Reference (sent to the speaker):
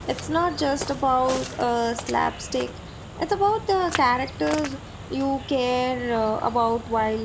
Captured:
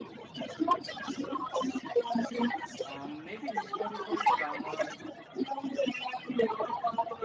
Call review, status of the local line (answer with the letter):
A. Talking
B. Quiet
A